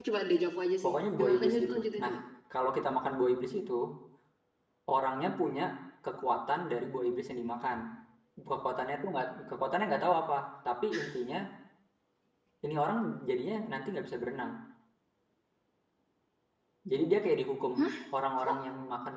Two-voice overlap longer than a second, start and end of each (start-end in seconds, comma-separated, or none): 0.8-2.1